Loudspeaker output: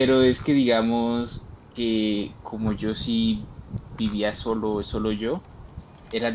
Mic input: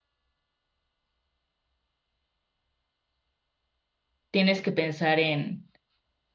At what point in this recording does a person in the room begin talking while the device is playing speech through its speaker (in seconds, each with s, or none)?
4.3 s